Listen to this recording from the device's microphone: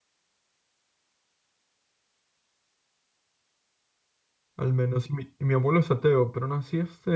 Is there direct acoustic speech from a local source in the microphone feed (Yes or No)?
Yes